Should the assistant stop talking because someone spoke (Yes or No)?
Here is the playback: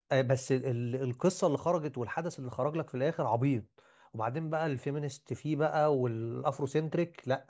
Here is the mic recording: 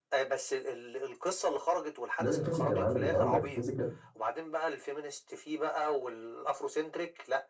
Yes